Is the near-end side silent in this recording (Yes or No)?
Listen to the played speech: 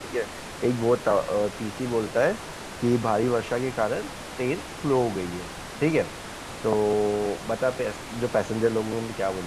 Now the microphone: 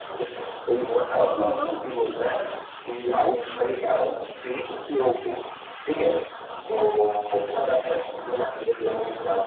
No